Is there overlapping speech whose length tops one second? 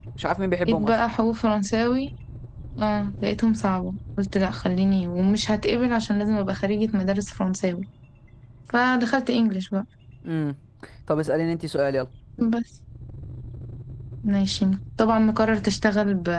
No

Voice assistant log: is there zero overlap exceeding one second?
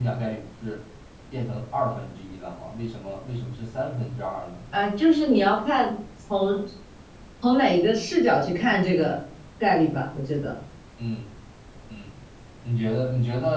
Yes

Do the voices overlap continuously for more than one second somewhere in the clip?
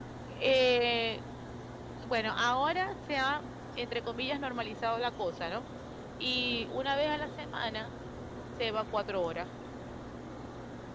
No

